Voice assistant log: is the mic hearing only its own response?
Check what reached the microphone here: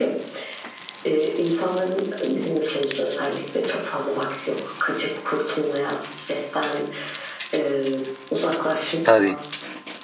No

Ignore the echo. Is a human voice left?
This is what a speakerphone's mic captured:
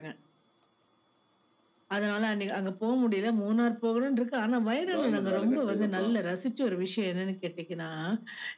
Yes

